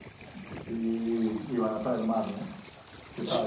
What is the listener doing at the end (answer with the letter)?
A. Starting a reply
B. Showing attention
A